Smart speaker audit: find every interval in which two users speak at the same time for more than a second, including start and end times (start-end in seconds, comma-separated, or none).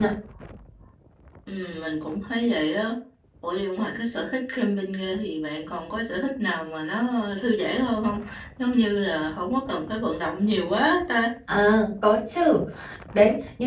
none